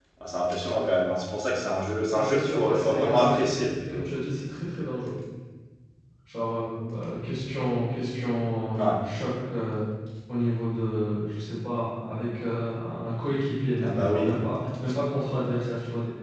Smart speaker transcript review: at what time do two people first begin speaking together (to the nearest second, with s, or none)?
2 s